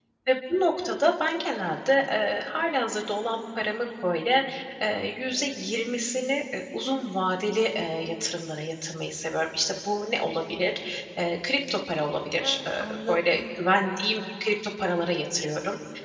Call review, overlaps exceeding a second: present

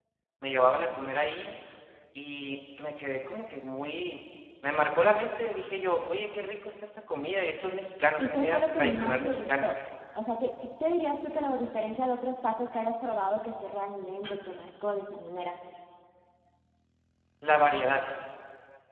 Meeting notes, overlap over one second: present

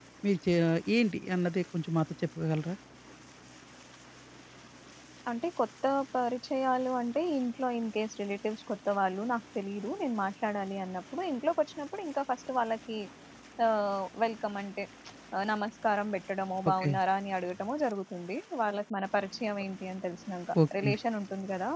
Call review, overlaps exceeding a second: none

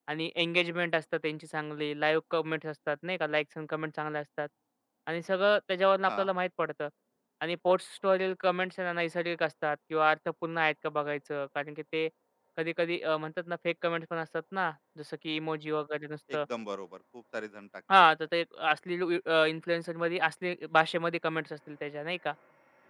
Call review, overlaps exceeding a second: none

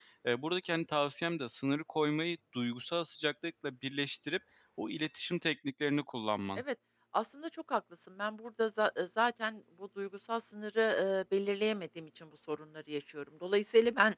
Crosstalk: none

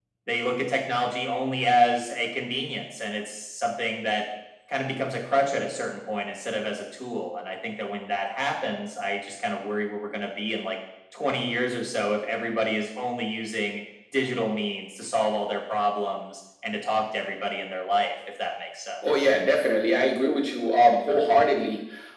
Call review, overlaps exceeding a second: none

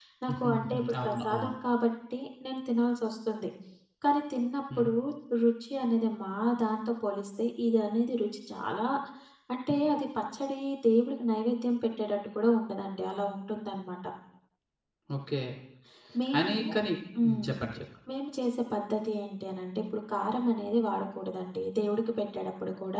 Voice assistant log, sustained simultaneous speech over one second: present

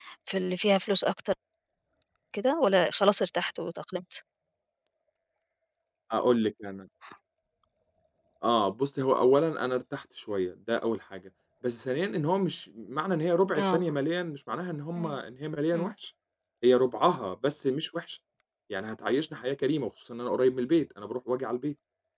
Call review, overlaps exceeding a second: none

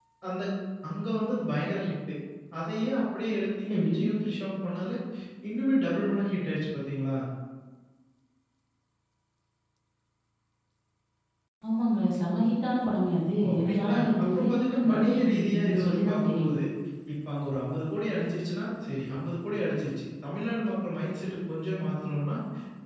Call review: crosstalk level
present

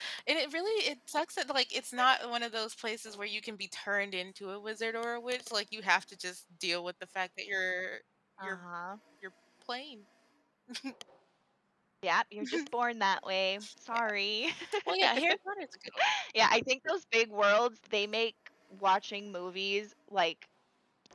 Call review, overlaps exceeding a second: none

